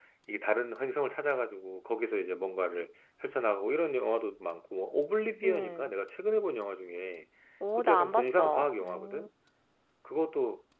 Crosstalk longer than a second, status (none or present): present